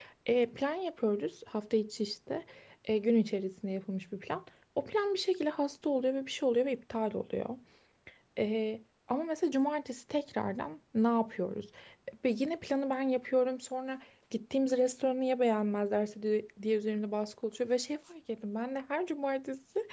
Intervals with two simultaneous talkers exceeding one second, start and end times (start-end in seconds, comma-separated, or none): none